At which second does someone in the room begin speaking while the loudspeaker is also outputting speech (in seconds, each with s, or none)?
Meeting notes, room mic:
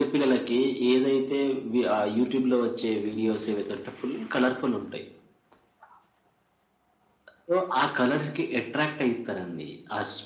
none